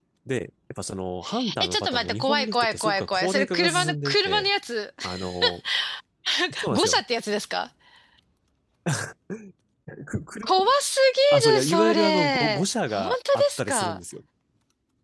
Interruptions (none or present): present